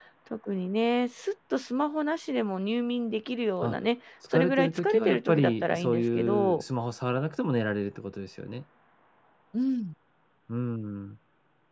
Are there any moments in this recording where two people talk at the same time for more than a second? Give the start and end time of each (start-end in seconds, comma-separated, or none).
4.3-6.6